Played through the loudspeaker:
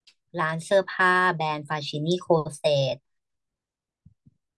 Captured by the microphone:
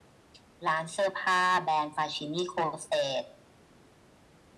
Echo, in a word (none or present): present